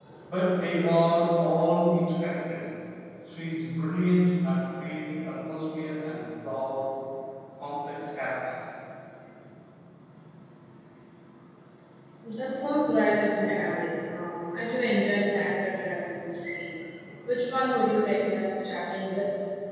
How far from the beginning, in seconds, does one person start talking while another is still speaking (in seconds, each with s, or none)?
none